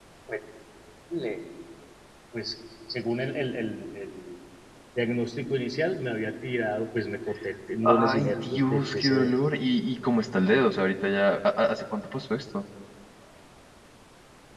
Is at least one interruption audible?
Yes, from 7.8 s

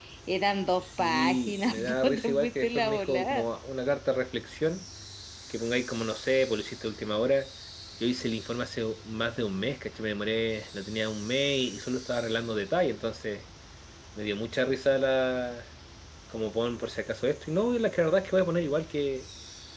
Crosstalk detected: Yes, from 0.8 s

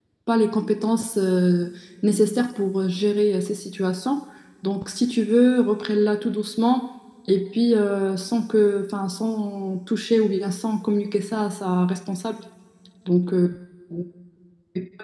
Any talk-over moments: No

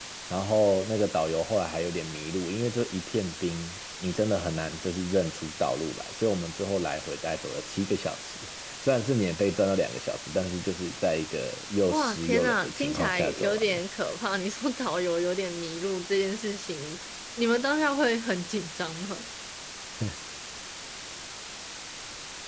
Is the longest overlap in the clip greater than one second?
Yes, from 11.9 s

